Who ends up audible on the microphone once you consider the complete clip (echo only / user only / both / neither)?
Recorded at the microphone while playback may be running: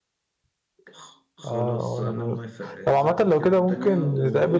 both